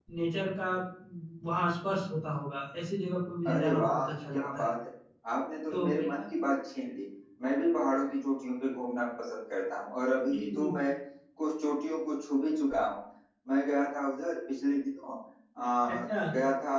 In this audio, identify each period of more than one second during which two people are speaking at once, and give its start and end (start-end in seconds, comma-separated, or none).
3.5-4.7